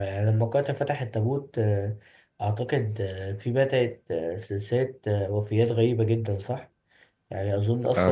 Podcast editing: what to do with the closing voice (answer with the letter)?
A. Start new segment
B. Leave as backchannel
B